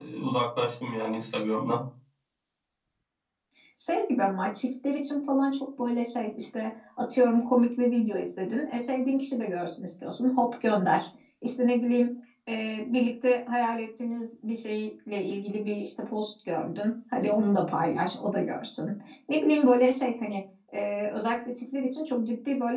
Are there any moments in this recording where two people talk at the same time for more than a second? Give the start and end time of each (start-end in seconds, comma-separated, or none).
none